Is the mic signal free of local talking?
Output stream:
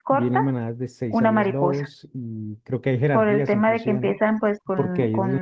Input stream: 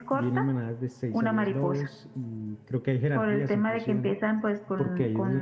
Yes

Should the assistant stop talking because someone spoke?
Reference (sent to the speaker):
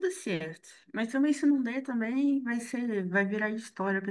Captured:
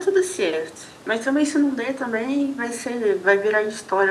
No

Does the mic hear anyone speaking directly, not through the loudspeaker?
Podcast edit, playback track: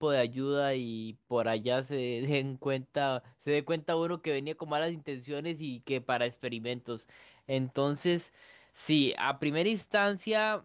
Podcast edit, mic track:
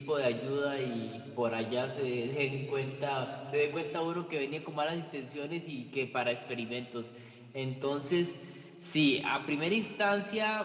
No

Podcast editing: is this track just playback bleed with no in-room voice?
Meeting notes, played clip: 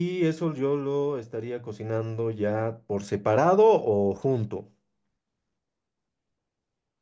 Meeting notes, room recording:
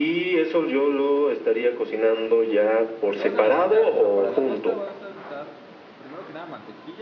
No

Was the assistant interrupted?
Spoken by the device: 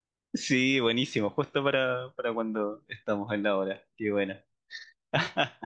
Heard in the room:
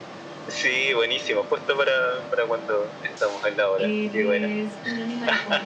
Yes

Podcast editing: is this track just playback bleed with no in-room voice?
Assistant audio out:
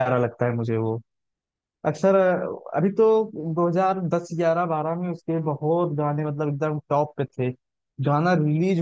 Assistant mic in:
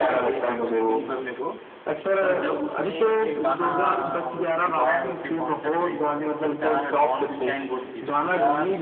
No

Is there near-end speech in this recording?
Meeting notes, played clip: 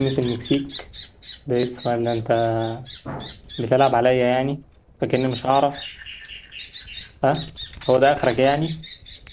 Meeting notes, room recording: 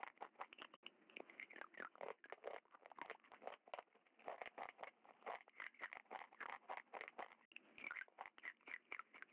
No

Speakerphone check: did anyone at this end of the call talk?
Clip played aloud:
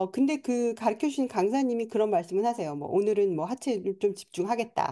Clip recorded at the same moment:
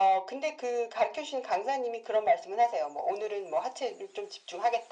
No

